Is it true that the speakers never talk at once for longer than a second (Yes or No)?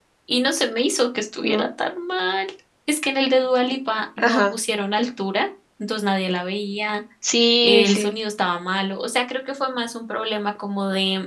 Yes